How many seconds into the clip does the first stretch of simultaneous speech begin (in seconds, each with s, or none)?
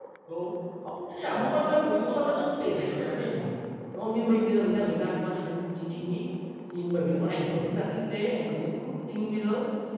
1.1 s